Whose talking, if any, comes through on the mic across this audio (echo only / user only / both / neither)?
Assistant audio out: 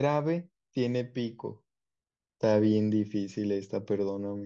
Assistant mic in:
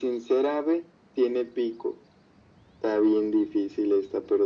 echo only